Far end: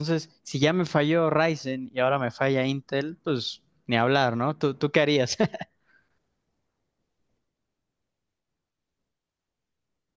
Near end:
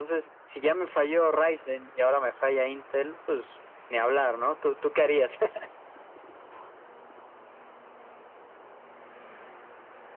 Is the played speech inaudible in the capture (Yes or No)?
No